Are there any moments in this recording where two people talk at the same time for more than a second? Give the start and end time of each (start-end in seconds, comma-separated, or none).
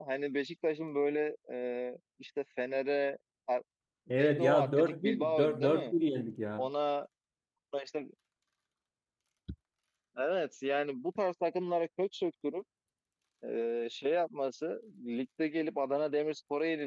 4.1-5.9